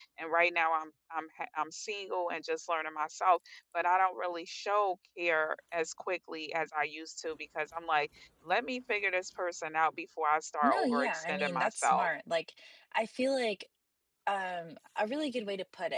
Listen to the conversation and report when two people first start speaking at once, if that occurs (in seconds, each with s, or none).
10.6 s